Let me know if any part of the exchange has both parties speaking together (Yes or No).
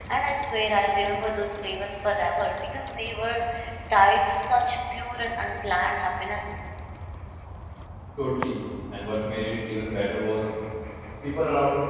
No